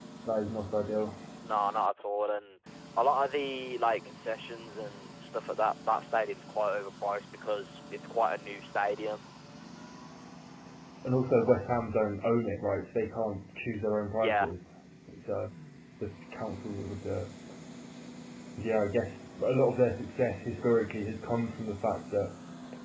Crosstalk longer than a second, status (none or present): none